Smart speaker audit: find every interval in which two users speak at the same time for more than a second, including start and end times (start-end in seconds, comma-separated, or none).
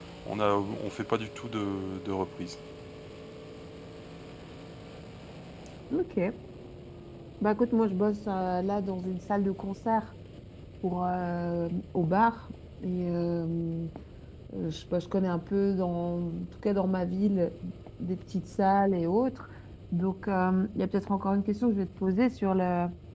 none